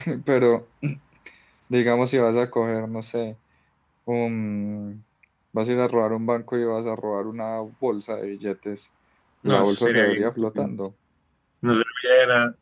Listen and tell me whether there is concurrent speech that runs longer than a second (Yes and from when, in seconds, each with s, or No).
Yes, from 9.4 s